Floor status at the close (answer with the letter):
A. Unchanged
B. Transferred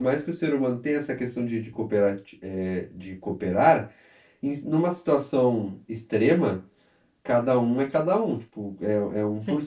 B